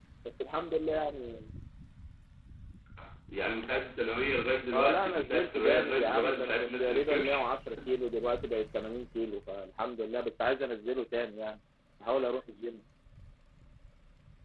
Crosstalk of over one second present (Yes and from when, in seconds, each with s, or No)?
Yes, from 4.7 s